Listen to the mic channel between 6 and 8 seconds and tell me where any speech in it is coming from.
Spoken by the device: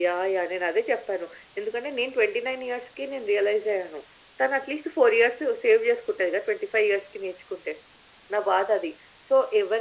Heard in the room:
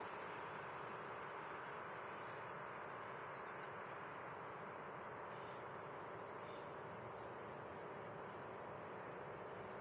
neither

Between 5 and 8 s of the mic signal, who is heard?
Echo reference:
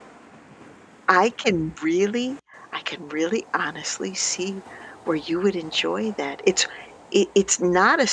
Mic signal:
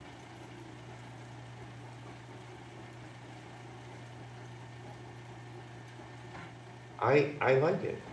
user only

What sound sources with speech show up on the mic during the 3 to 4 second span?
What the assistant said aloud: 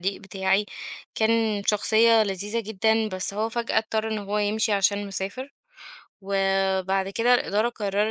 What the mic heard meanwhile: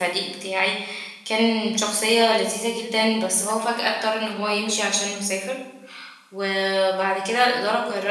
both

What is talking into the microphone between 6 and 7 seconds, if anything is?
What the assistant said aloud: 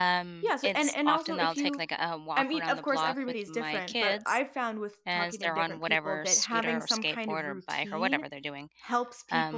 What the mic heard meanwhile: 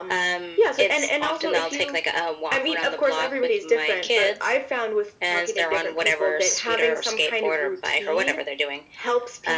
echo only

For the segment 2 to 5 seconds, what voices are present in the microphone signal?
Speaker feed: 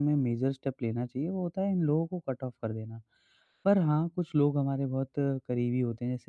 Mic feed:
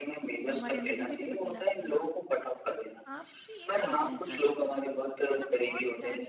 both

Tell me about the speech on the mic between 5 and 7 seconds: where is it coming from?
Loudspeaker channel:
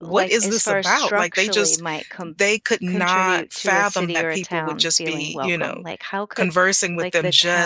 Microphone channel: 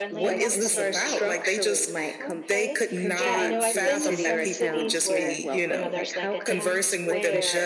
both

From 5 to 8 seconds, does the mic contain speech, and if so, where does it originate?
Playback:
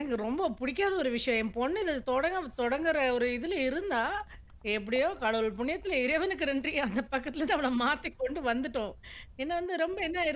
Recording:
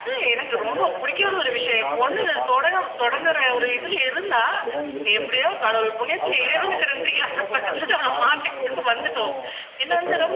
both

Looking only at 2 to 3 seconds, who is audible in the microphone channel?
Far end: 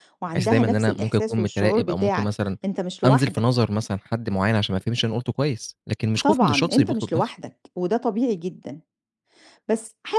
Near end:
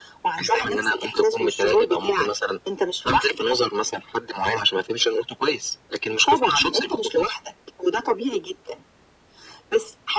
echo only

